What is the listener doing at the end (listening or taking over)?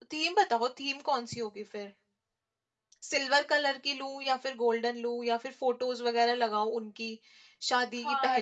taking over